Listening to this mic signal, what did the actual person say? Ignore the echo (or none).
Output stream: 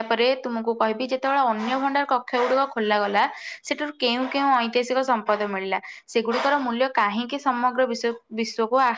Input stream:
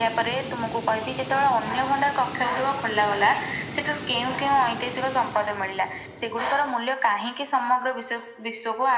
none